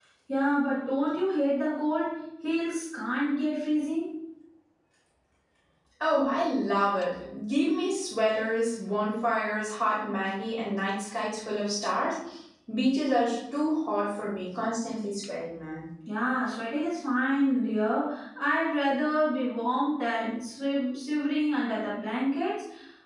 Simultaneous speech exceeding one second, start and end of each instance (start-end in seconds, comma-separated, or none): none